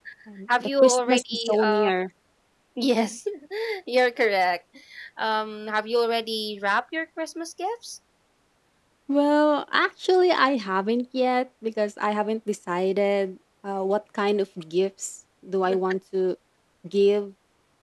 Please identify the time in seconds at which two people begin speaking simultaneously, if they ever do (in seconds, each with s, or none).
0.6 s